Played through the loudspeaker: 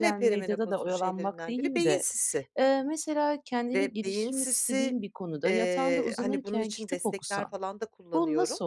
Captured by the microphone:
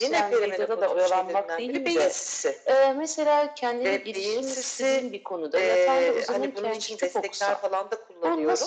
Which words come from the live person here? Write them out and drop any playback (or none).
none